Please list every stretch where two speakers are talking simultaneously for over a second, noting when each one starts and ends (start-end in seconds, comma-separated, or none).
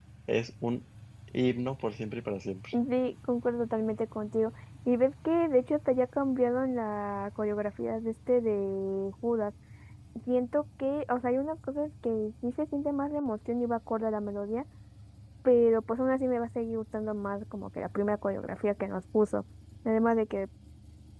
none